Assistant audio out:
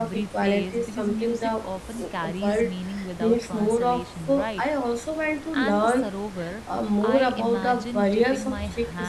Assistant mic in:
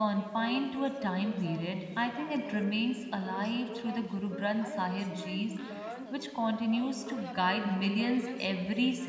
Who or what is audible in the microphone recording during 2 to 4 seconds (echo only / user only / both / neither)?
both